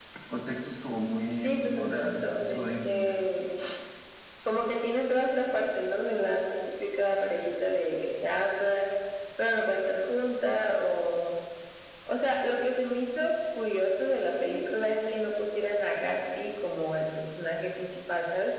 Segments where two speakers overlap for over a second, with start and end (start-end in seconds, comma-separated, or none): 1.4-3.2